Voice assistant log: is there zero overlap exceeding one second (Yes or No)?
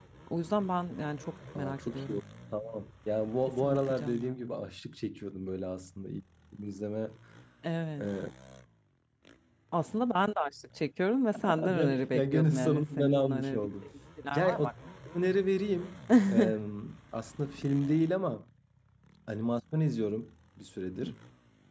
No